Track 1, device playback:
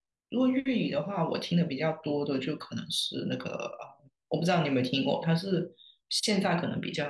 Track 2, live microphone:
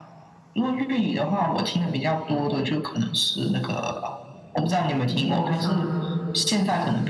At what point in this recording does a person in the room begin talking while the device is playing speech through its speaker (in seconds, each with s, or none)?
5.1 s